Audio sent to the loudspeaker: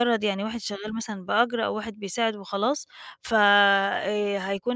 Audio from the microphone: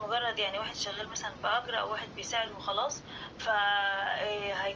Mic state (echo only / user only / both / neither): echo only